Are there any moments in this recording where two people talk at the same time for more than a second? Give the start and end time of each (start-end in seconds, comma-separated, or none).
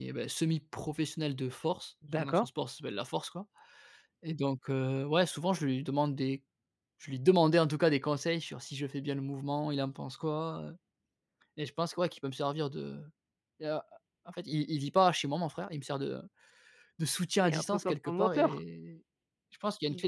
17.4-18.6